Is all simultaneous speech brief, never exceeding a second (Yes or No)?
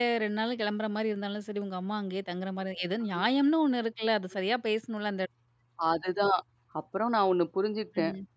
Yes